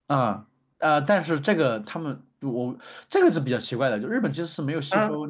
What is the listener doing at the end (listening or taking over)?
listening